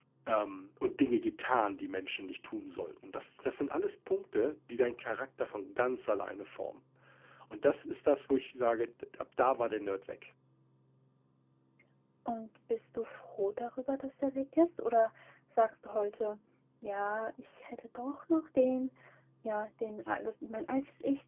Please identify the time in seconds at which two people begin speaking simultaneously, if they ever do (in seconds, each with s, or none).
none